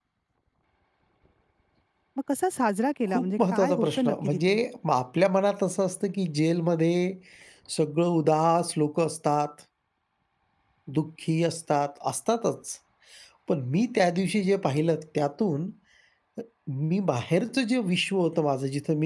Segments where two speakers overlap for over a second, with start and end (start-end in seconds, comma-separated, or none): 3.1-4.6